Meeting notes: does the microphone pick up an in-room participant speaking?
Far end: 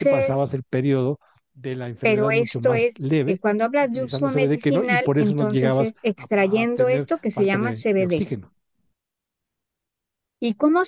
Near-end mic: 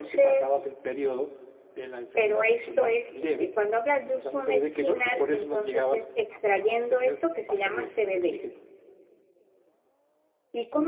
No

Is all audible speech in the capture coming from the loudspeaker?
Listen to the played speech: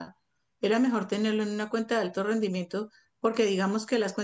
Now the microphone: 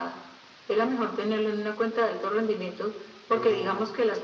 No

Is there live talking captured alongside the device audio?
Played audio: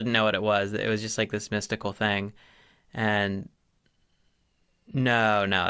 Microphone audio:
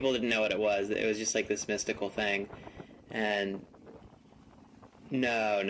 No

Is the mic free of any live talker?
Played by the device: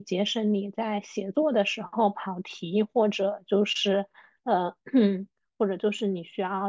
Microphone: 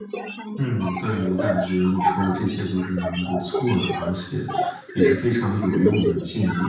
No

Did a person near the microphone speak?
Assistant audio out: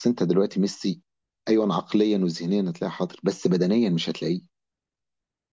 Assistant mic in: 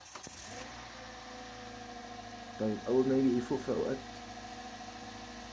Yes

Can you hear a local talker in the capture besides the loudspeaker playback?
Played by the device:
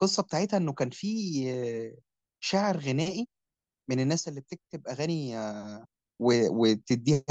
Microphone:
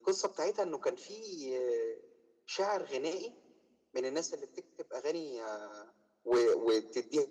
No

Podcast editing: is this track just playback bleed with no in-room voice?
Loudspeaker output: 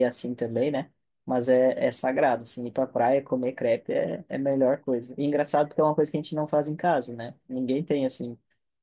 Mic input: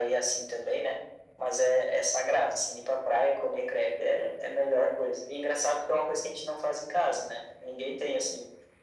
Yes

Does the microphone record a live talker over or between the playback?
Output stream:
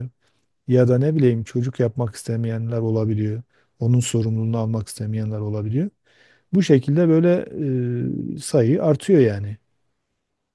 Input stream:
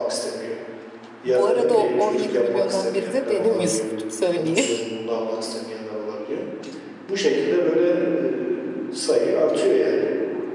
Yes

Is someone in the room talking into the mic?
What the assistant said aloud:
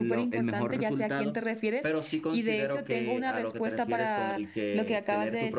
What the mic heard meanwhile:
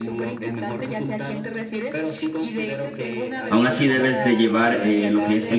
Yes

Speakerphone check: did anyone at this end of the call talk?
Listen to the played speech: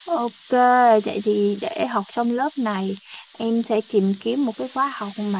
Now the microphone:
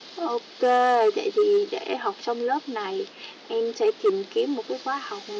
No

